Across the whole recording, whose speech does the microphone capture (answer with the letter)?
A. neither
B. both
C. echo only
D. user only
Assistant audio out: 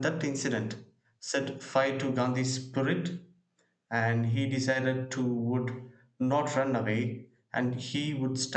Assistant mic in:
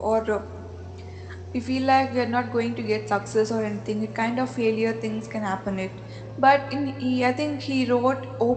D